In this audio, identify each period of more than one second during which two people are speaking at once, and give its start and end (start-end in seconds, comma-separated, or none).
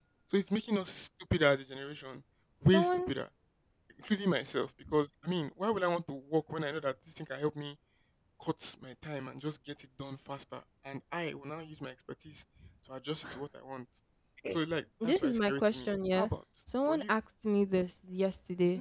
15.0-16.3